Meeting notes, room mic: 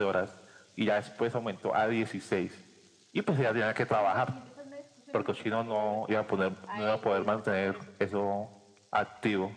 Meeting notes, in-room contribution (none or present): present